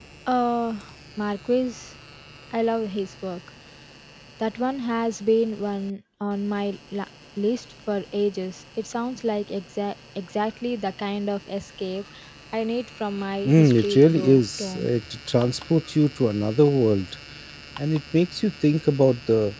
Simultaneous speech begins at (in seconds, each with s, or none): 13.4 s